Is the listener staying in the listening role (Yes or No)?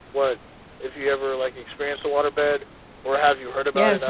No